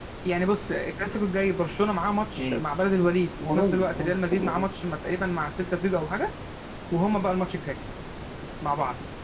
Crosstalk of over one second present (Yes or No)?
Yes